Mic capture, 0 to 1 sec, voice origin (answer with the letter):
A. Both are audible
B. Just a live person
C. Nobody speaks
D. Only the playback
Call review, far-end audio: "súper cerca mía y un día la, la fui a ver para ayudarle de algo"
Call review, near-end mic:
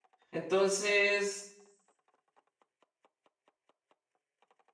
B